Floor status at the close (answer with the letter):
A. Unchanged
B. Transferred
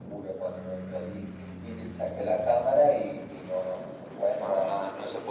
B